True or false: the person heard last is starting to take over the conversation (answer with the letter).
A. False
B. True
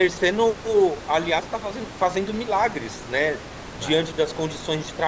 A